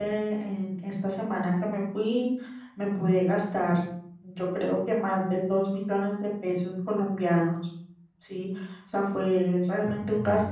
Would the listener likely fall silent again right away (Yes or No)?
Yes